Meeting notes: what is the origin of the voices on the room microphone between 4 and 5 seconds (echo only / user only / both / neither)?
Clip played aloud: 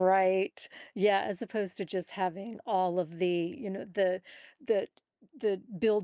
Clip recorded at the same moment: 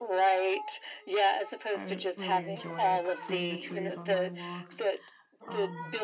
both